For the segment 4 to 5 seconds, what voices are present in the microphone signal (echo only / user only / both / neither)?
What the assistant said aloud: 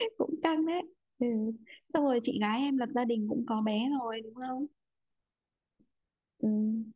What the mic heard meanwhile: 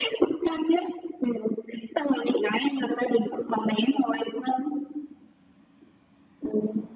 echo only